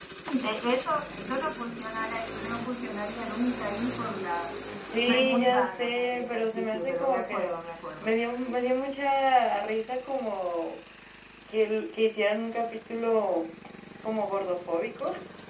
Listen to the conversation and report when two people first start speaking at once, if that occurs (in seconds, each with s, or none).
5.0 s